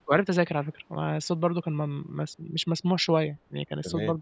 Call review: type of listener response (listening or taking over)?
listening